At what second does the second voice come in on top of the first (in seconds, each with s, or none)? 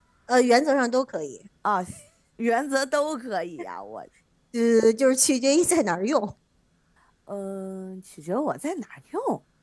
none